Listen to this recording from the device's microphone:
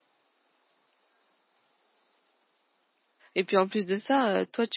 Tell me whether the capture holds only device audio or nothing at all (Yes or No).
No